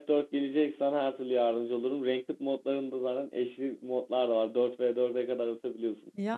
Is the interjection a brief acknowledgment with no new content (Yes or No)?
Yes